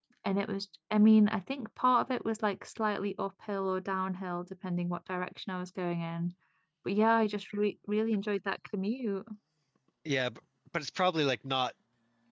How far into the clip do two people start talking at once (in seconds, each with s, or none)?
none